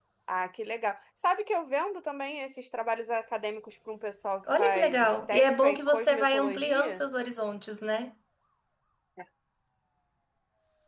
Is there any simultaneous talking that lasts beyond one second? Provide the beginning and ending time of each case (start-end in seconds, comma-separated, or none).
4.6-7.0